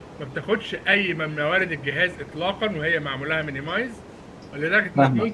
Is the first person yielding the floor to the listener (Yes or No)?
No